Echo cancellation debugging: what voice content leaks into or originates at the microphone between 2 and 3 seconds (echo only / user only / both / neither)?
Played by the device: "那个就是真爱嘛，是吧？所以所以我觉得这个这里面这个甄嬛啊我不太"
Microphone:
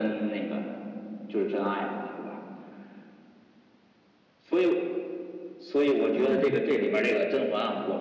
echo only